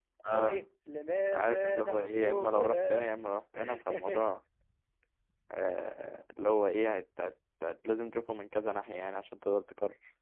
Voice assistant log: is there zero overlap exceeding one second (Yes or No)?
No